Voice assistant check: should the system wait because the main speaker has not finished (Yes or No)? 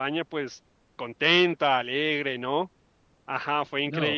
No